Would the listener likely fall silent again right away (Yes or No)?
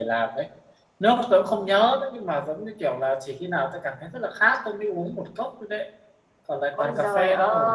No